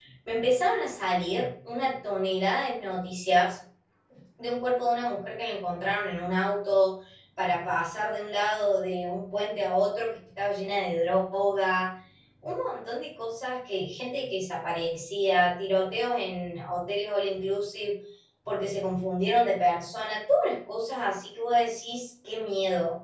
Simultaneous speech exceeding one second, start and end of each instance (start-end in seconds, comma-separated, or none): none